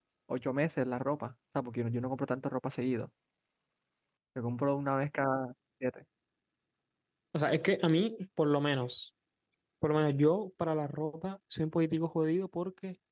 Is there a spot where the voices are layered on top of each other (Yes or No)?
No